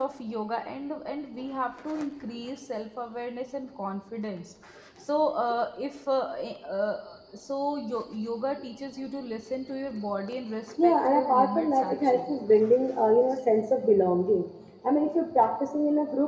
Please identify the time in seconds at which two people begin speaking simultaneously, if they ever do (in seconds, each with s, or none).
10.8 s